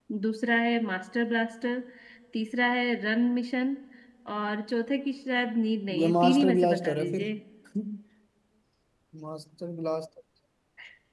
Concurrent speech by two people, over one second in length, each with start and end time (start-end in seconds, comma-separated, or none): 6.0-7.3